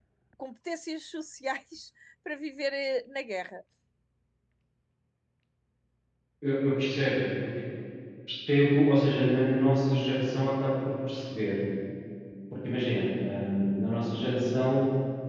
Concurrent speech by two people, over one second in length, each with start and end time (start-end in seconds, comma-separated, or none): none